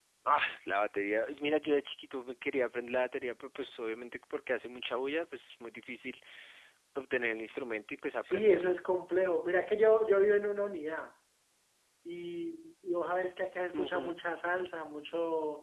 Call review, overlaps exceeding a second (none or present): none